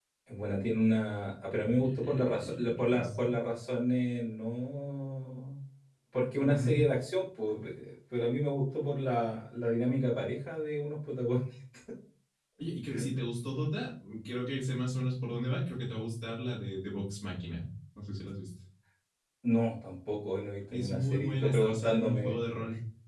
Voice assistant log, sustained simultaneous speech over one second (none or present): present